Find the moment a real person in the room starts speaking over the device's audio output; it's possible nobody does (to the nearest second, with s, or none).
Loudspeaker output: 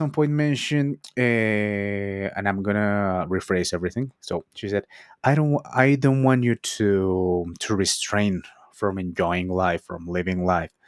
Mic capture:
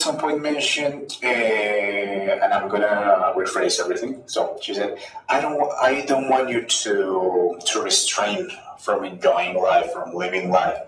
none